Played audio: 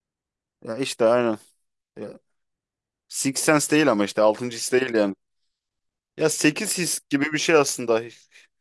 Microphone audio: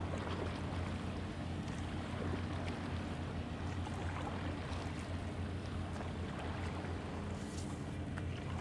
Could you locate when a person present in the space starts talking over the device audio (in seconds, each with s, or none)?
none